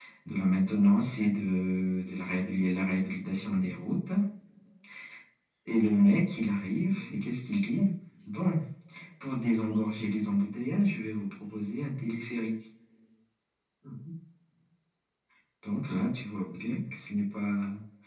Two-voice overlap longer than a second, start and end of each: none

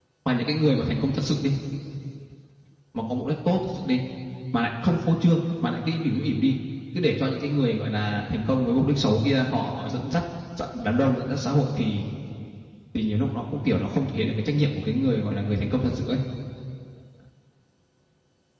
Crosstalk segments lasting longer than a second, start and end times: none

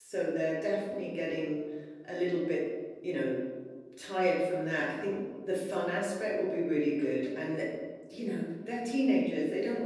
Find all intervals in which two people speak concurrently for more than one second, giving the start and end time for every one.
none

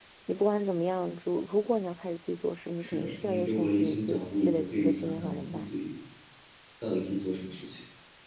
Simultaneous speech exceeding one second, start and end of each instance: 2.8-5.7

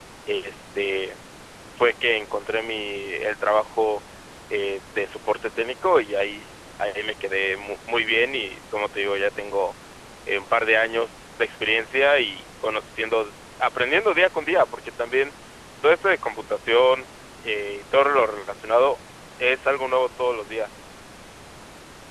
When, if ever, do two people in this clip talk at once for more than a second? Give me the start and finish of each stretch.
none

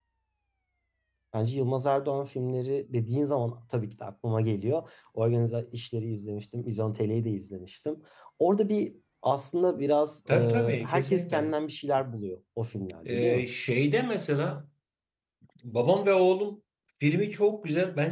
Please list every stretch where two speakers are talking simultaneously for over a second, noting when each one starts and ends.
10.3-11.5

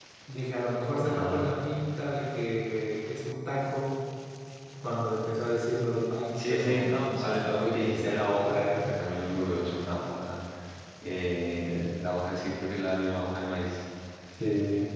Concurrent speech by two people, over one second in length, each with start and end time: 6.3-8.8

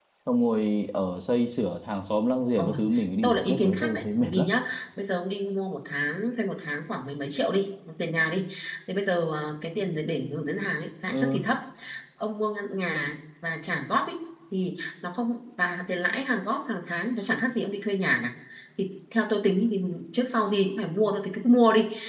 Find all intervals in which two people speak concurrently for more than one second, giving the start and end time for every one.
3.2-4.5

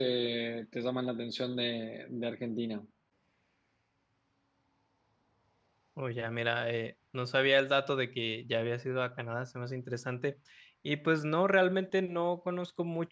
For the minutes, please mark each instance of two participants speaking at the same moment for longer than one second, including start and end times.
none

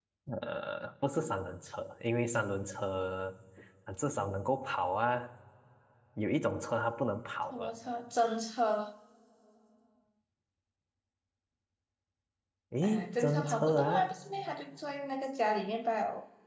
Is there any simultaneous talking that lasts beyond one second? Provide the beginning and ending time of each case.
12.8-14.1

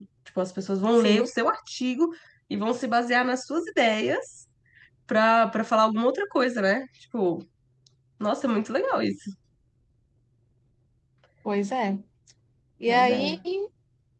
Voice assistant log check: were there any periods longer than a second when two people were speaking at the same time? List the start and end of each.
none

